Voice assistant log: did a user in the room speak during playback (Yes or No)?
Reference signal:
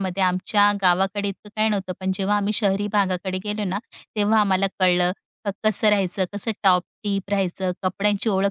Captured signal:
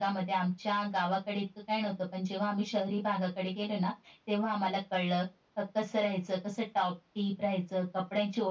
No